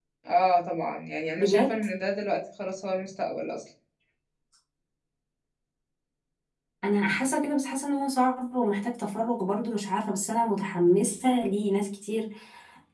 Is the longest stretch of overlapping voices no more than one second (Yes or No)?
Yes